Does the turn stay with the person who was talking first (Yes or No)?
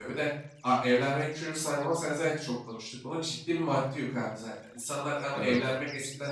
Yes